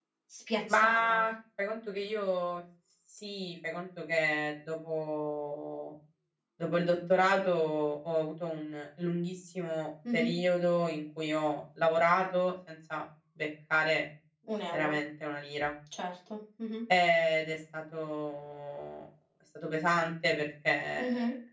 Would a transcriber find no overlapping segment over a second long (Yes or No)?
Yes